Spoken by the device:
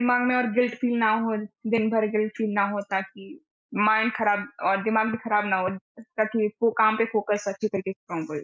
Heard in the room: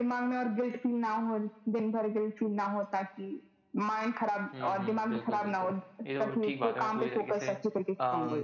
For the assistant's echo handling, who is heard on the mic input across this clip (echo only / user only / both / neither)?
both